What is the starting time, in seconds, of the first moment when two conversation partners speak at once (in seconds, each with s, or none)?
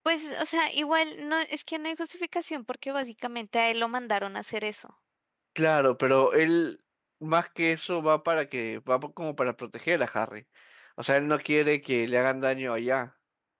none